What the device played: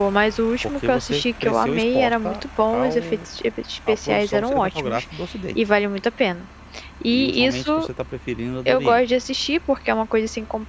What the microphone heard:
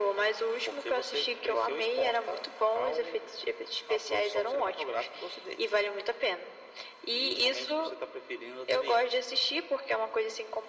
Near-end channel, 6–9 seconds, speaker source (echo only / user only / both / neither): echo only